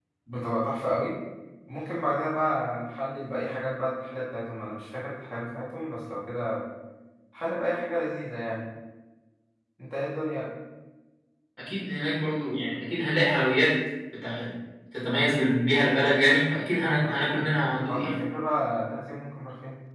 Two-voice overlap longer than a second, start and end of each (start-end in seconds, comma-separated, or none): 16.9-18.2